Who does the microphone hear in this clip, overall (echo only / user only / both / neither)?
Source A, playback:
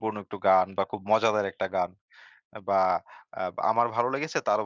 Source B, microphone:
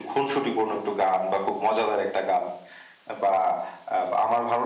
echo only